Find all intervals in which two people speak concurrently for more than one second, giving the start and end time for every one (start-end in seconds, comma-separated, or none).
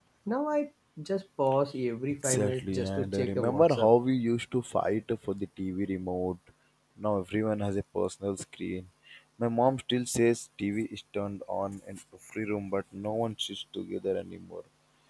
2.2-3.9